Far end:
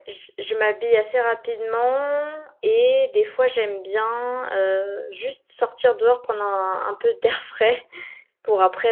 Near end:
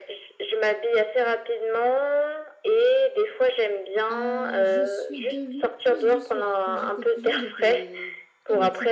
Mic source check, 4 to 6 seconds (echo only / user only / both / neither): both